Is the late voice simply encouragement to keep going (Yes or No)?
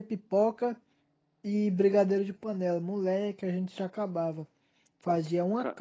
Yes